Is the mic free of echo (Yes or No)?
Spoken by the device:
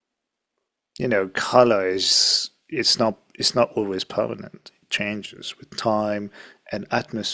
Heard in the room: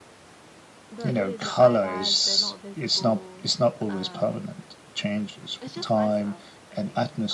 No